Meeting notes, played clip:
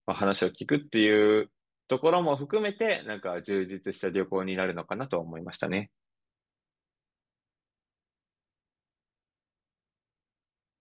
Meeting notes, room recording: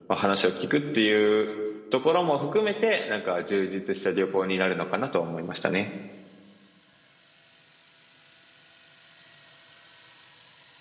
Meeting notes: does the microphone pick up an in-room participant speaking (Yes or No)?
No